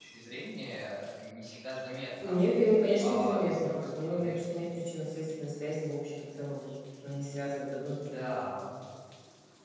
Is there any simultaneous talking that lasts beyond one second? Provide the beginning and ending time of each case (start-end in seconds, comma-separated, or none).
3.0-4.4